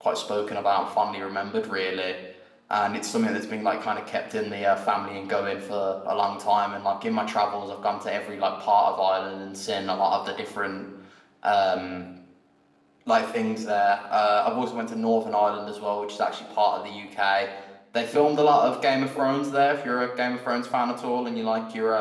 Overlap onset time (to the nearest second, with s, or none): none